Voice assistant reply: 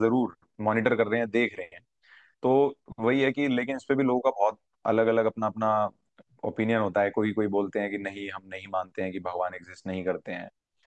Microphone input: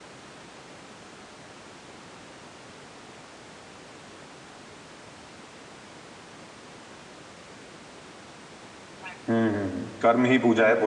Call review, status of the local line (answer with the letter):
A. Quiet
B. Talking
B